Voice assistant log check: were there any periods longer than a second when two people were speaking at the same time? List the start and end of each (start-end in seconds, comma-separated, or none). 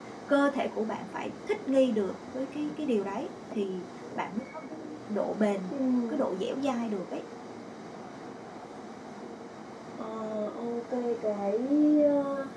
none